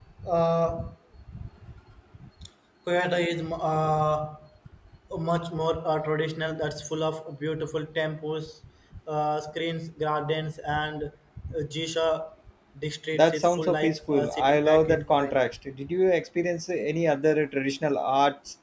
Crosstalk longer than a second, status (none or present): present